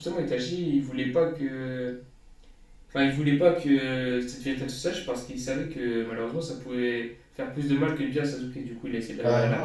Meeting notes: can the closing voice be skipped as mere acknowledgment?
No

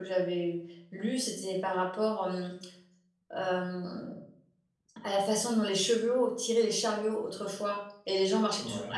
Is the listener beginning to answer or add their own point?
No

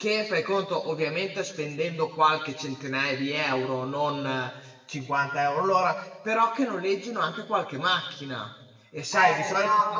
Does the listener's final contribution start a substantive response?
Yes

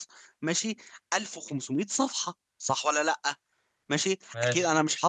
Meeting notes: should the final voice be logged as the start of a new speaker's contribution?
No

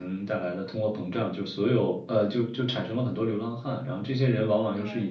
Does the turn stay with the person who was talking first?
Yes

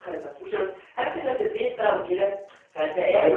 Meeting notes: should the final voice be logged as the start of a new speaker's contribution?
Yes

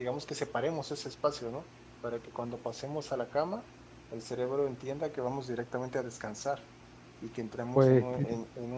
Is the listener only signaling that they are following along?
Yes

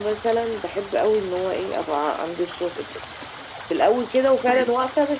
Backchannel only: Yes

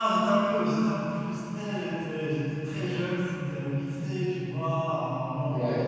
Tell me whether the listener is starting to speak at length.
No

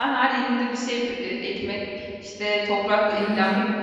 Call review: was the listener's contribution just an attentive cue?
Yes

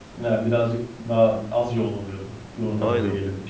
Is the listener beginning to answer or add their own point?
Yes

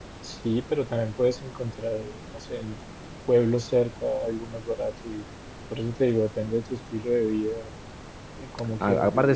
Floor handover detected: Yes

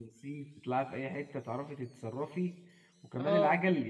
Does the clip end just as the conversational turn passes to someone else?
No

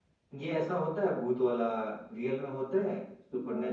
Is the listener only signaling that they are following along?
No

